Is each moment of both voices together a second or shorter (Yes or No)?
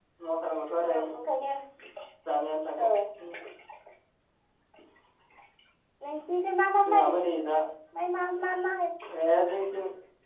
Yes